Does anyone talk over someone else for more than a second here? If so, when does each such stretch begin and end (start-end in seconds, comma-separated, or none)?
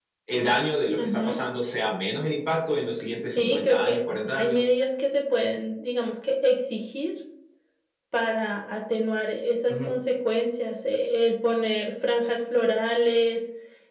3.3-4.6